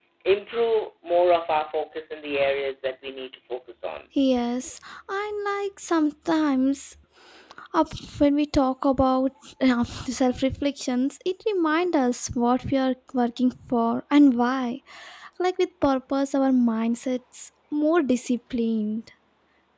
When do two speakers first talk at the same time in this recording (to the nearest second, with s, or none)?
none